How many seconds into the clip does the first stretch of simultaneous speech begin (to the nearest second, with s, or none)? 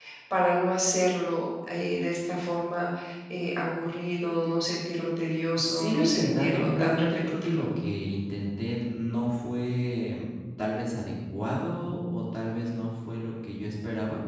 6 s